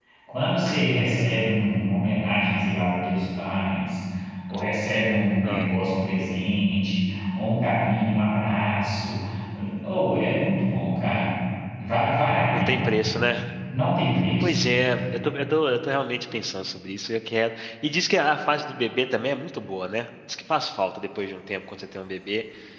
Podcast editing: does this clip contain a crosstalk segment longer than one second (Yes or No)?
No